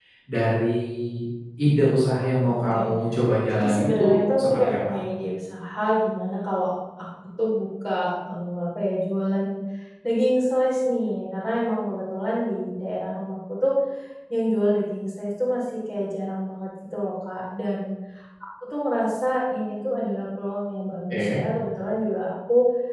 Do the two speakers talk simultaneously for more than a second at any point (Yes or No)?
Yes